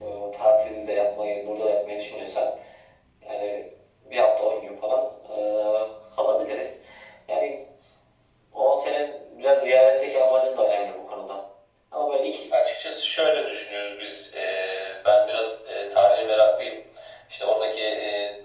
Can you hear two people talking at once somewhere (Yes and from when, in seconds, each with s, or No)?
No